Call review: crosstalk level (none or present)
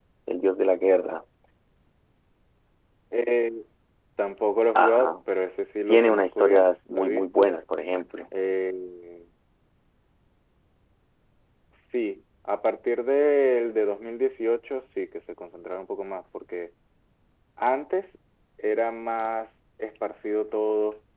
present